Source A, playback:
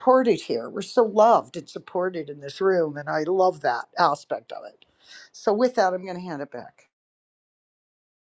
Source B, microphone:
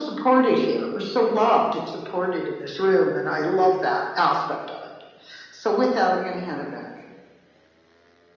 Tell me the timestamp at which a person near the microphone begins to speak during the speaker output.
none

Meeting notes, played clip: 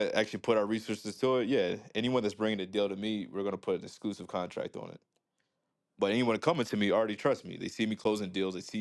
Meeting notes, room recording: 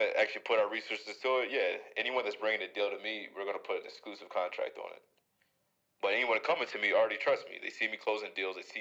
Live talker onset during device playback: none

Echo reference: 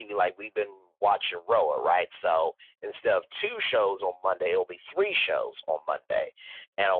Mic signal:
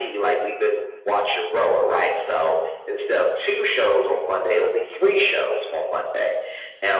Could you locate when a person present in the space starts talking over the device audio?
none

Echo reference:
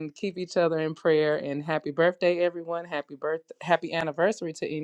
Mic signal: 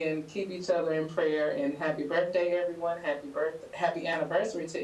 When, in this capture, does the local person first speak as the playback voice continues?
none

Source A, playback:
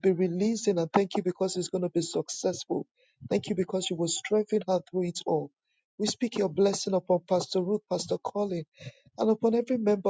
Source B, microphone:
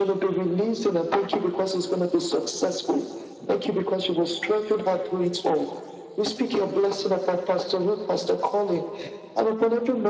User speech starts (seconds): none

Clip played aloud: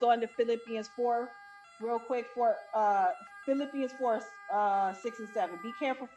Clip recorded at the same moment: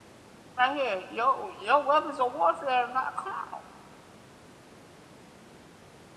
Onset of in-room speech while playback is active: 0.6 s

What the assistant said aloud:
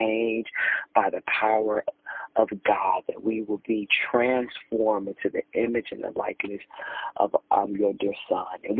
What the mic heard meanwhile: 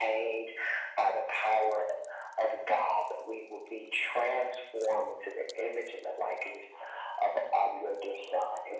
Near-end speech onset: none

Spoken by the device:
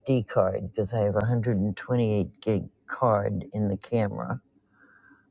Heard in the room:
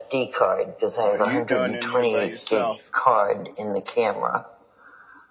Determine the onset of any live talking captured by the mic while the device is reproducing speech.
0.9 s

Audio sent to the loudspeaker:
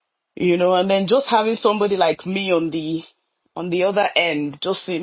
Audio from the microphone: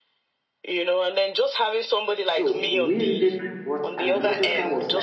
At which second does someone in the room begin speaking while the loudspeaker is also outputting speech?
2.2 s

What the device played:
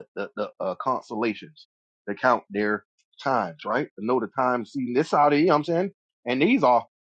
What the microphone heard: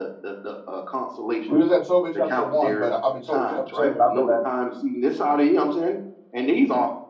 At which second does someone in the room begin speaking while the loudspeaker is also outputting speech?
1.5 s

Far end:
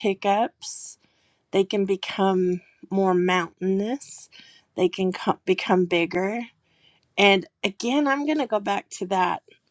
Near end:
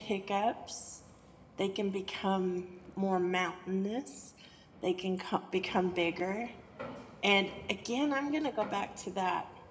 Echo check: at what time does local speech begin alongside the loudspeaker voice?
none

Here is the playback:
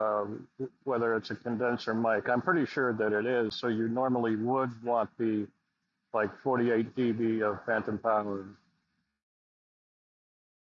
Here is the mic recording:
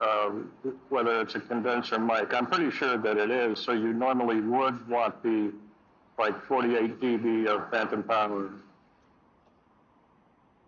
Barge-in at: none

